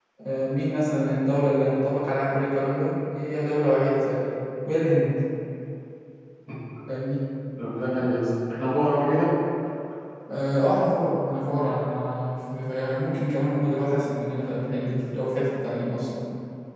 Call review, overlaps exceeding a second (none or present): none